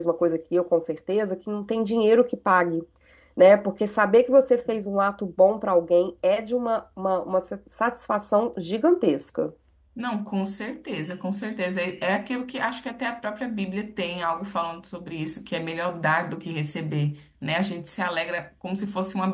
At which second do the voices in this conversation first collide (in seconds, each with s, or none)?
none